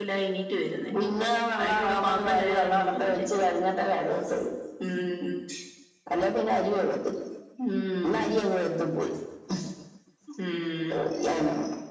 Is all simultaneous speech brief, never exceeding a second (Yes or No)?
No